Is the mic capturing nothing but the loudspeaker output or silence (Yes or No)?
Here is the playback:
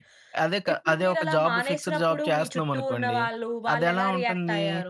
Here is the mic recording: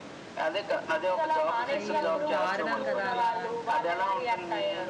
No